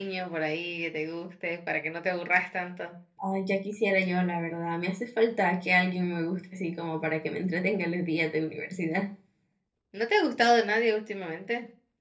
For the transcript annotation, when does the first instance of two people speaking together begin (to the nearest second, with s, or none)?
none